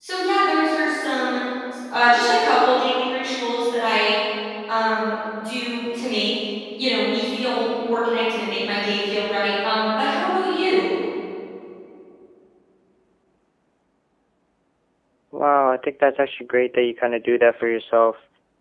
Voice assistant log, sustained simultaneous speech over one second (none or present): none